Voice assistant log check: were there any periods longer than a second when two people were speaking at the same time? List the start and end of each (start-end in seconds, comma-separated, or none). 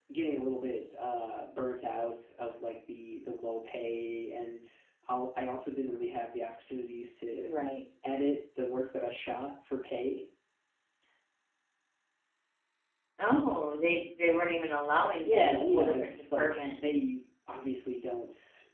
15.2-16.8